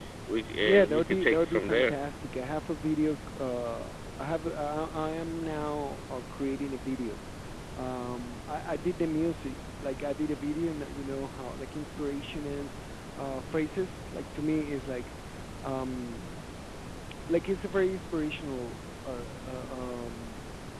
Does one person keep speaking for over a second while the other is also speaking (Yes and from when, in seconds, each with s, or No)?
Yes, from 0.6 s